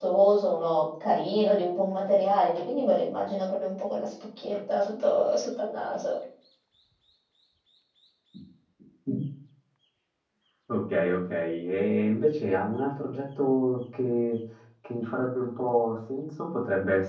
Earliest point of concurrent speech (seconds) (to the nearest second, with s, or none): none